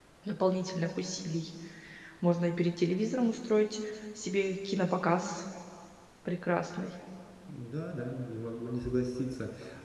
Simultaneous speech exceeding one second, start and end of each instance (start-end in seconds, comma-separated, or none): none